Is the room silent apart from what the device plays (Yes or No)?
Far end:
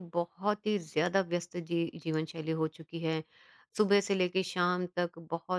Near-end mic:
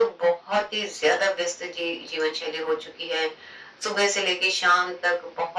Yes